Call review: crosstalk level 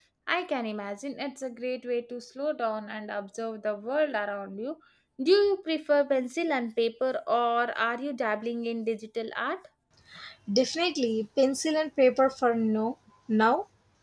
none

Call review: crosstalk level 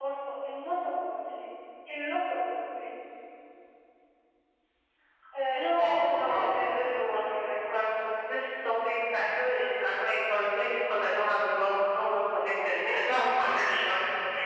present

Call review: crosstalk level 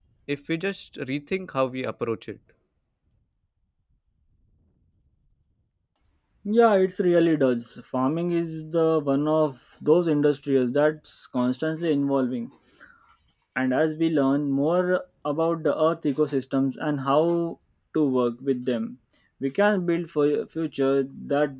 none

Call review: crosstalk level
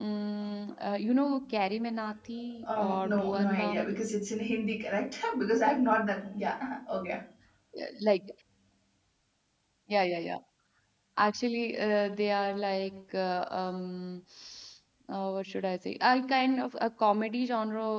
present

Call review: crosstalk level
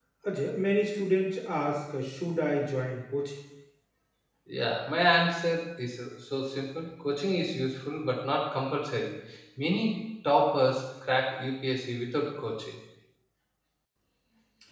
none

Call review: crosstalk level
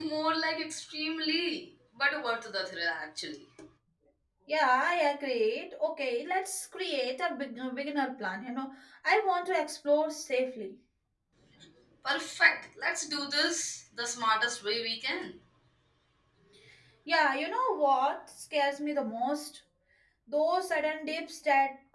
none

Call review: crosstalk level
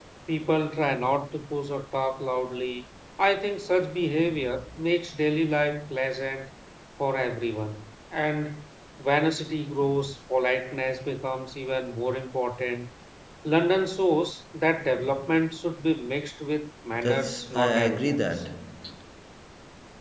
present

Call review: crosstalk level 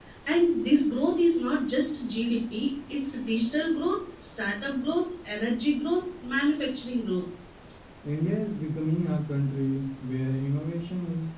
none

